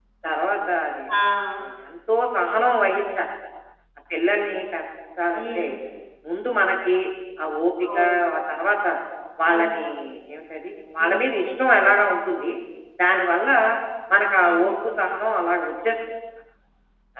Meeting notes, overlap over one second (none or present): none